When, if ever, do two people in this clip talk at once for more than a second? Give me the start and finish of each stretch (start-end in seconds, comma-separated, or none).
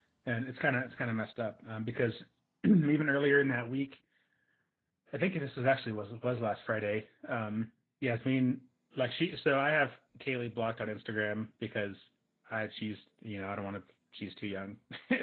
none